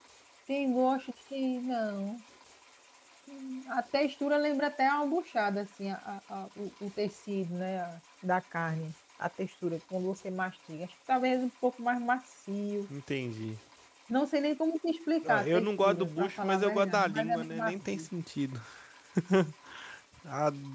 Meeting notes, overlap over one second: present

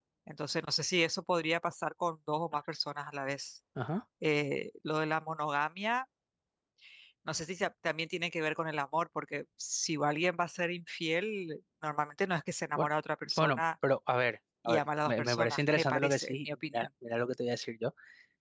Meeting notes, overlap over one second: present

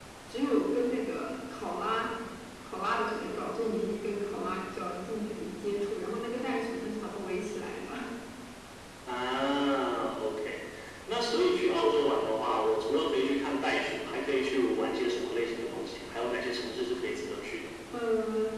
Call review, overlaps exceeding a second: none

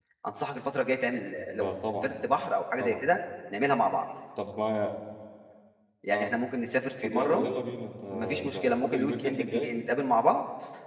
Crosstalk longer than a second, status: present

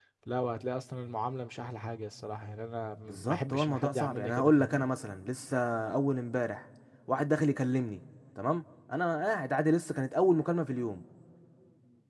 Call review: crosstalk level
present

